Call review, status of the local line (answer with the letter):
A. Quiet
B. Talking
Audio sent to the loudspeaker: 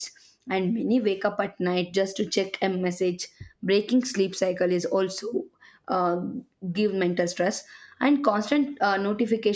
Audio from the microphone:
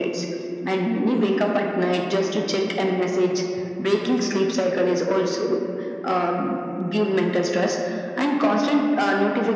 A